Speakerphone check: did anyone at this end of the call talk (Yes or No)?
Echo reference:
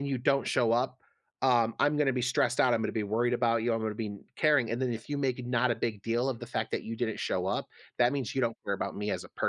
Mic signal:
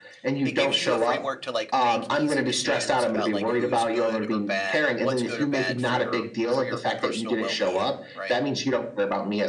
Yes